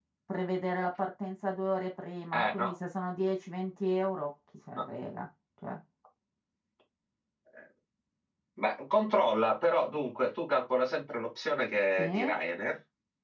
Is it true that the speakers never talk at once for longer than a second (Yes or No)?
Yes